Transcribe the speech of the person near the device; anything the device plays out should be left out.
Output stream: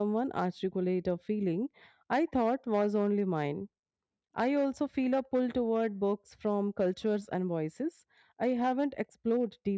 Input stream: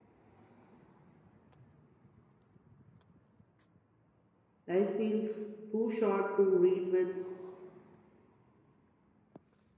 Life feels too short to read with

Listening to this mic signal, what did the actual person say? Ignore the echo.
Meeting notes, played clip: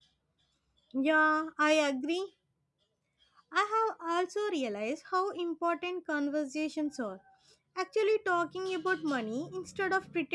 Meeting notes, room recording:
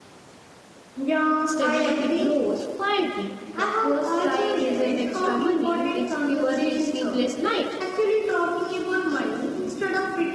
Stability grows quietly. The first sign isn't extra money, it's fewer sleepless nights

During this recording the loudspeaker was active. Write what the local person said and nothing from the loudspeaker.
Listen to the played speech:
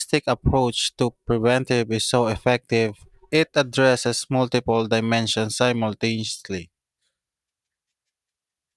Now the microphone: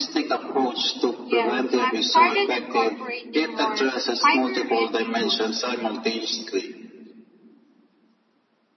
Yes, I've started incorporating more fiber rich foods,

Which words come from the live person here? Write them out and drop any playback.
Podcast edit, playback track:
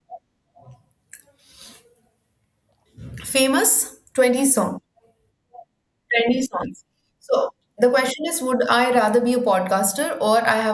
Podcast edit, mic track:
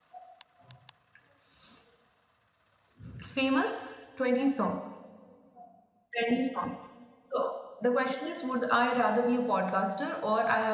none

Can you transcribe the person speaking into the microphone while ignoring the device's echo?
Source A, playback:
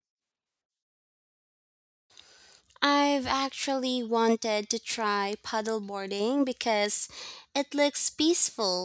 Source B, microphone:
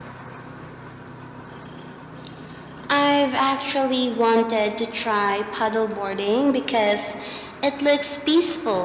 none

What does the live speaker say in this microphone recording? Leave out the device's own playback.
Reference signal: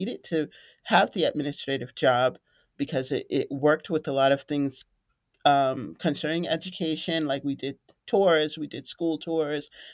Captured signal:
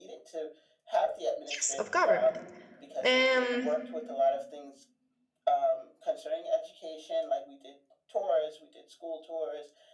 yes of government um

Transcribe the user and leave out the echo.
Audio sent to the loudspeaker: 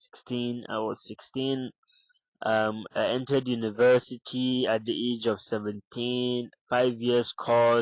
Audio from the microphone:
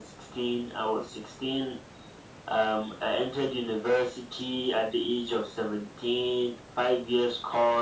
none

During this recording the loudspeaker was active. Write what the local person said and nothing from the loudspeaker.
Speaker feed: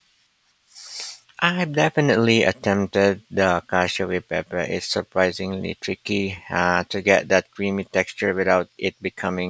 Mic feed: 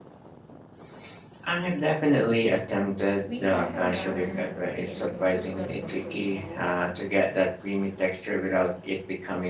We had a ramen place in Kyoto that was so small,

